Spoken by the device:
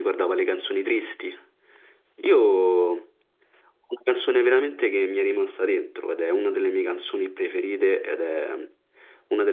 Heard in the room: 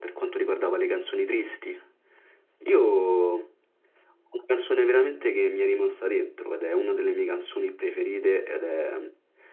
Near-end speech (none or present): none